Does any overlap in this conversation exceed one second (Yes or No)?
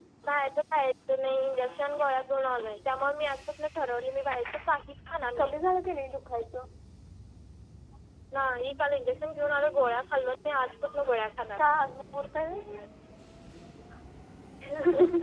No